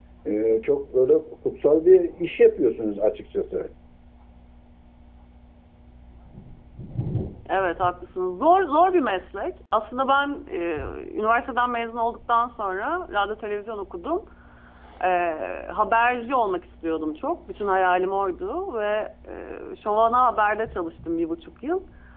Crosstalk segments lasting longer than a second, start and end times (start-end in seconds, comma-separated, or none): none